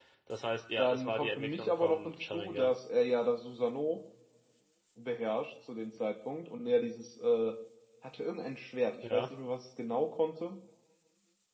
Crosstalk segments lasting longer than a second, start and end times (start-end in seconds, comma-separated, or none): 0.8-2.7